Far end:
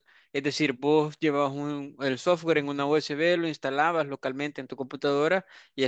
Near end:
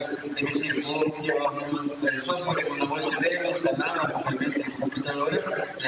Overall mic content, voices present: echo only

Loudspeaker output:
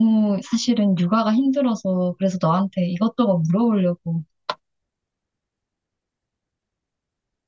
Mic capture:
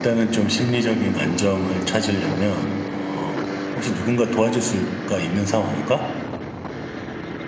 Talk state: user only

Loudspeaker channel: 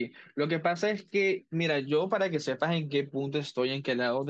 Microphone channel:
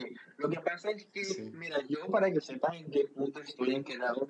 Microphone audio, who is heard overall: both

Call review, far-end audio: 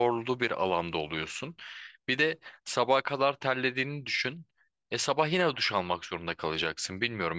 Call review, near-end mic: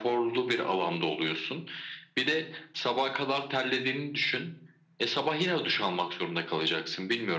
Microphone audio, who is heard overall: echo only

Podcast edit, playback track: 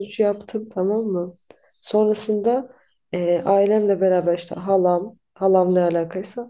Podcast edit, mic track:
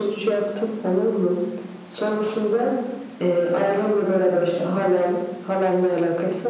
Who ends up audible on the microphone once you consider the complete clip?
echo only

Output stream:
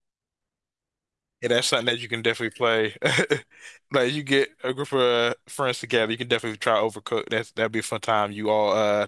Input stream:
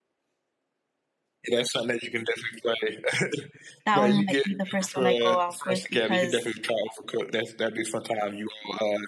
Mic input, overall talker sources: both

